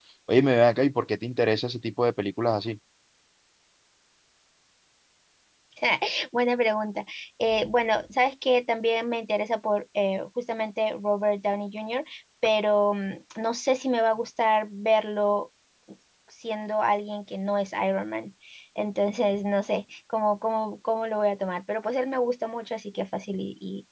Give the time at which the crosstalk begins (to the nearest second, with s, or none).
none